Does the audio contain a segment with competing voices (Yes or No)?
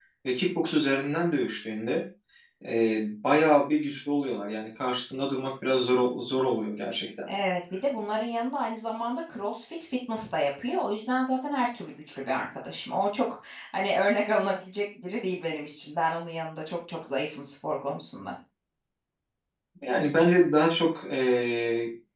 No